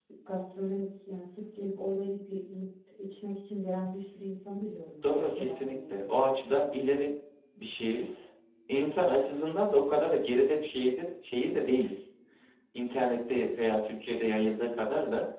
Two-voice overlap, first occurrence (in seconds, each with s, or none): 5.0 s